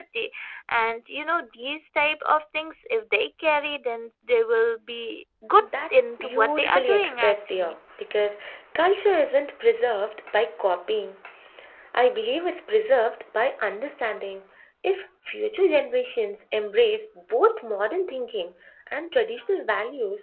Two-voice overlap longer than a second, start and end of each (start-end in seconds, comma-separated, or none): 5.6-7.8